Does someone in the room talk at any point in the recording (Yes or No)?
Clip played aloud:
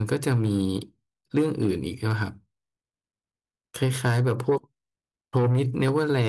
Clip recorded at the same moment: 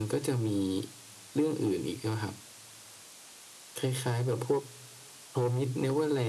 No